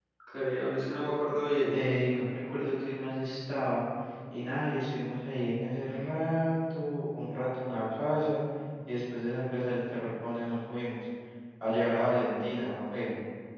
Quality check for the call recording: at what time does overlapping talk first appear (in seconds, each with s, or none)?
none